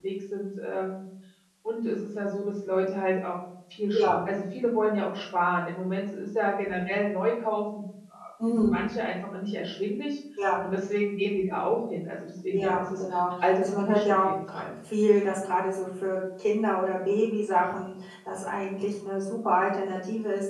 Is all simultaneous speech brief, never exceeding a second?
No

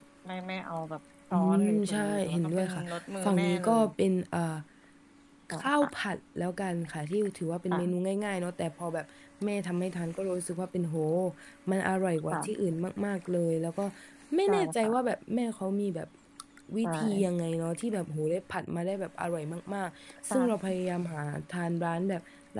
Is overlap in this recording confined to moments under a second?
No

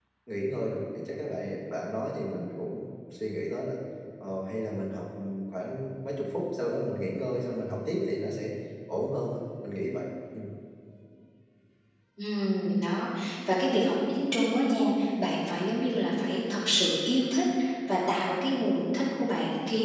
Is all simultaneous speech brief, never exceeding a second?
Yes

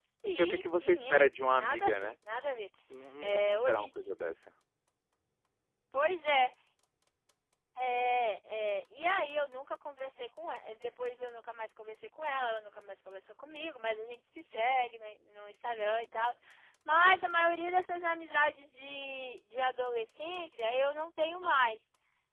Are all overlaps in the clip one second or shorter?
No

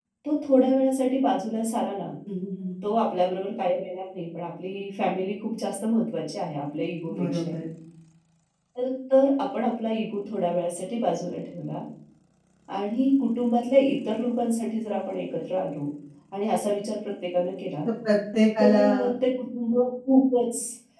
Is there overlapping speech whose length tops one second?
No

